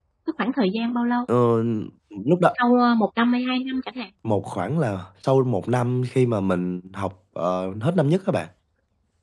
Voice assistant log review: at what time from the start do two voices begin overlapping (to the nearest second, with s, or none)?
none